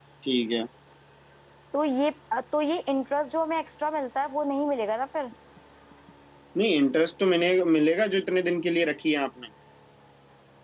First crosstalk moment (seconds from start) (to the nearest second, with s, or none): none